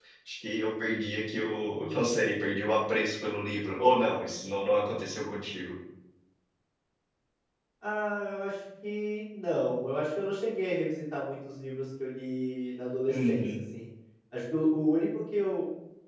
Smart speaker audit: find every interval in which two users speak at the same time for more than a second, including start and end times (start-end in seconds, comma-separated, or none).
none